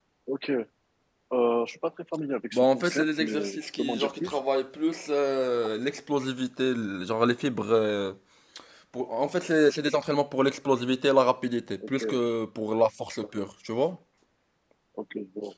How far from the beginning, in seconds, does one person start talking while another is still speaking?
2.5 s

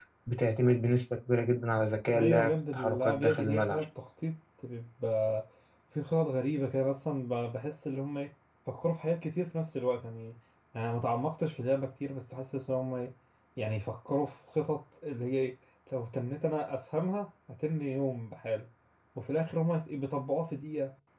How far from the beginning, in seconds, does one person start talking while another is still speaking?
2.1 s

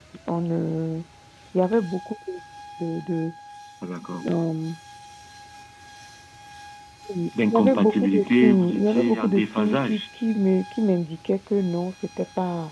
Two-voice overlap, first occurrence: 7.4 s

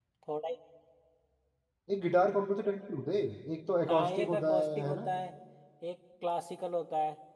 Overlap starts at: 3.9 s

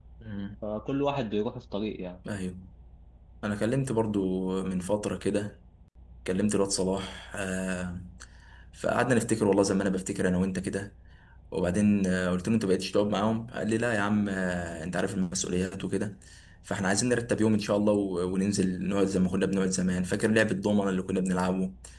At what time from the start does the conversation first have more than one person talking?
none

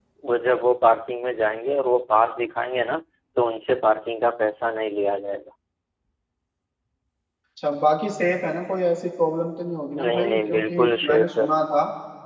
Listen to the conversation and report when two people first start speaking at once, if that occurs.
10.0 s

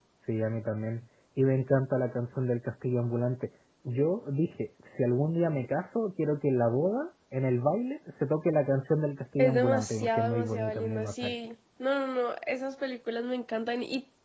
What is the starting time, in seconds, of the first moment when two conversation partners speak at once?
9.4 s

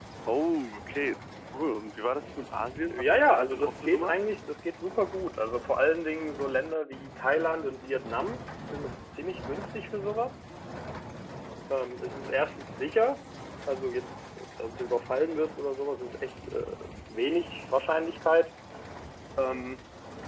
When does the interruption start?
2.9 s

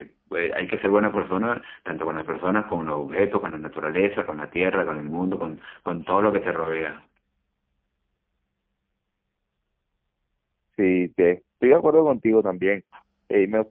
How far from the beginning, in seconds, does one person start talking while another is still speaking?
none

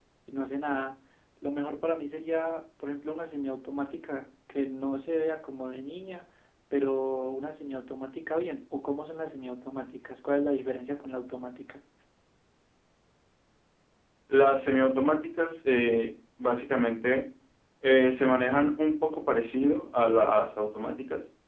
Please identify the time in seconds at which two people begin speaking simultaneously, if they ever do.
none

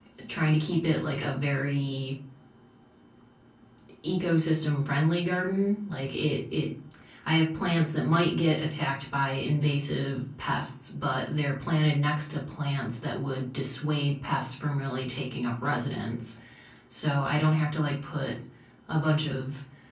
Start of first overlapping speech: none

